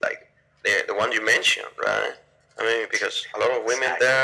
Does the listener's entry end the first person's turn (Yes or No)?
No